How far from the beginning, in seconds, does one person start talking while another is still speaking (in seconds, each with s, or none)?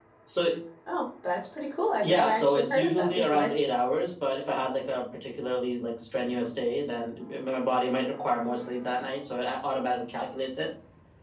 2.0 s